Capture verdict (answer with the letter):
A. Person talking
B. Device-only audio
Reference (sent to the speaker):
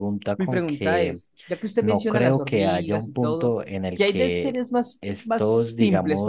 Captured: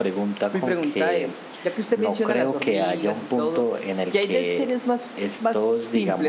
B